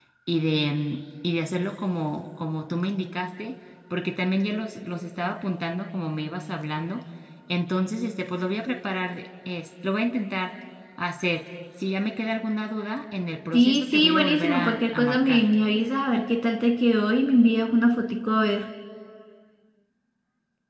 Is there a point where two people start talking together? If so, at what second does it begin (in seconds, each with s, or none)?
13.5 s